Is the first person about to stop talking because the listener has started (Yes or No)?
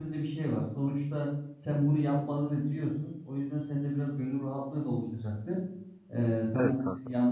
No